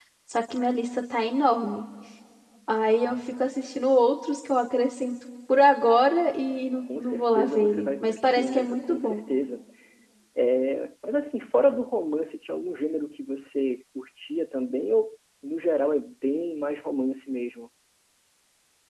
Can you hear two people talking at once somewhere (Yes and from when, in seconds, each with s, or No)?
Yes, from 6.9 s